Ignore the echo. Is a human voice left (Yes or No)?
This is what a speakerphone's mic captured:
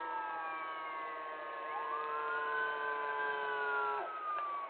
No